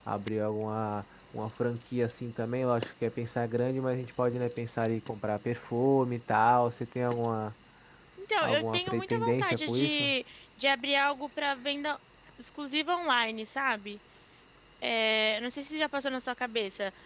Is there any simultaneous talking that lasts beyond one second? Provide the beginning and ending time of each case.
8.4-10.1

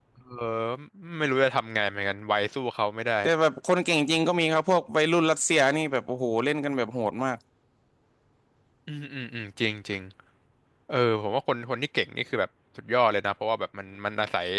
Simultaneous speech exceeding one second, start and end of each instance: none

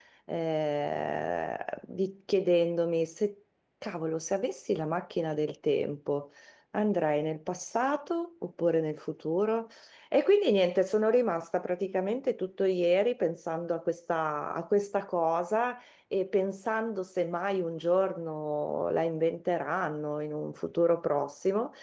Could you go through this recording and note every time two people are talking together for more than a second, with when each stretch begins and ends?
none

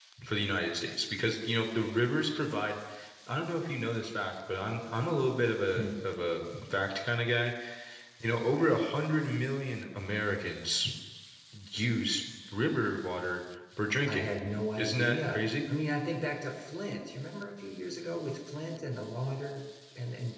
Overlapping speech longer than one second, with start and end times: 14.1-15.4

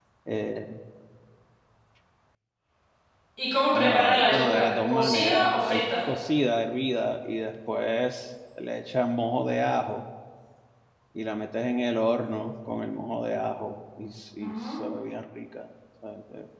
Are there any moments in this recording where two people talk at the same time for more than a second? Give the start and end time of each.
3.7-5.8

